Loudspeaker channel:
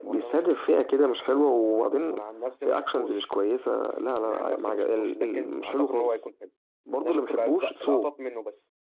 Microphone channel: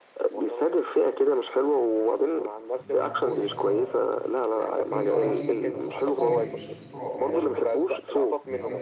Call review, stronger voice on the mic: echo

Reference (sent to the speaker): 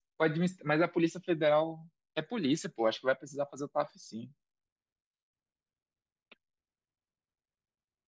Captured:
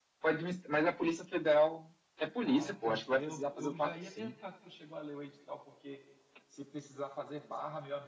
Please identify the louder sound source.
echo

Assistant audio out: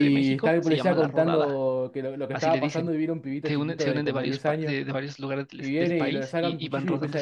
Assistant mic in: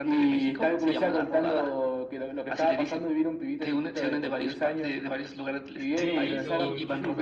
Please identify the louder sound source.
echo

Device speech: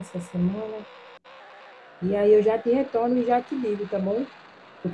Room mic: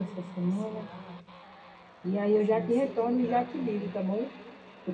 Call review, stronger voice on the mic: echo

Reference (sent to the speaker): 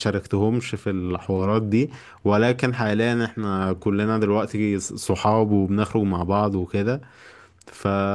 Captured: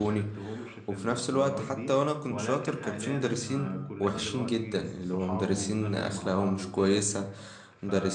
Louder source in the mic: user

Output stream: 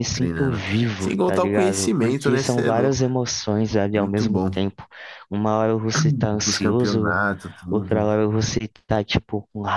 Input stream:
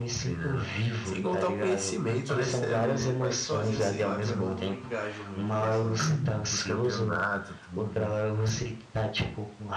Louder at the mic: echo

